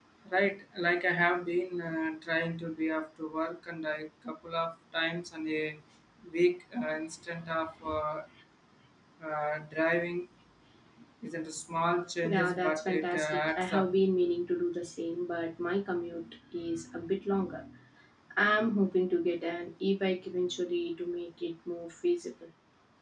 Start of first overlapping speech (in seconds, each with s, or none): 12.2 s